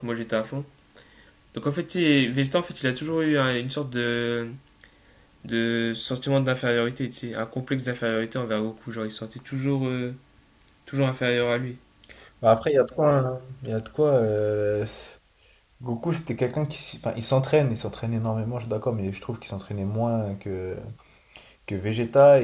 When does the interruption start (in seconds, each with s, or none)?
none